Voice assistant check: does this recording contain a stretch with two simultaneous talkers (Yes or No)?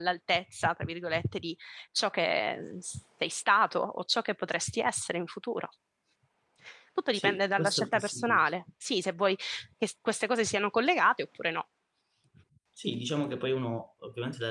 Yes